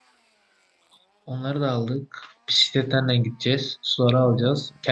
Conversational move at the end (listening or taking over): listening